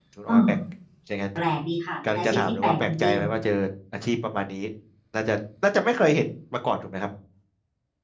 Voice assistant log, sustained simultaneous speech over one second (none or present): present